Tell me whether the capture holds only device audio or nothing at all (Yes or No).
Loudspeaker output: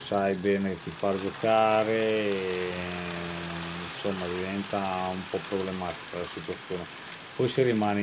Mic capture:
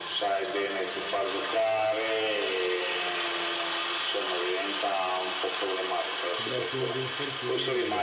No